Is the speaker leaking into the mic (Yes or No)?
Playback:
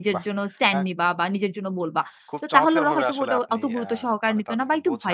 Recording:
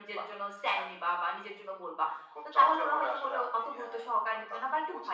Yes